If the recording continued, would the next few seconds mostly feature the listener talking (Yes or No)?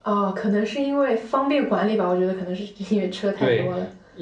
Yes